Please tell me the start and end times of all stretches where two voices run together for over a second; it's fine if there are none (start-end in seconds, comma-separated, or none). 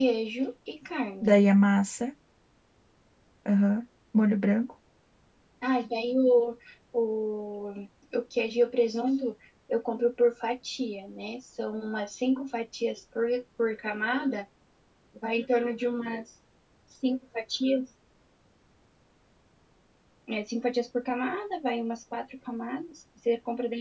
none